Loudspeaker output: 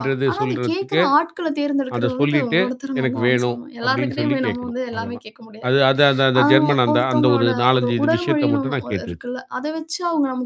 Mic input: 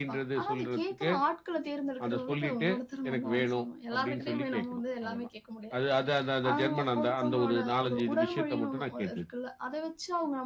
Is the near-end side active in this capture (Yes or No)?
No